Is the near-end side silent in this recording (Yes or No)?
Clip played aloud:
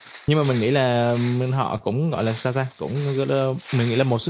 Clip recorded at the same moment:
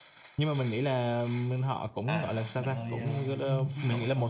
No